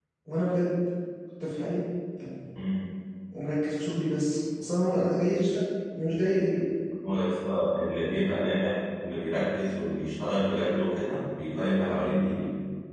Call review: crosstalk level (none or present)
none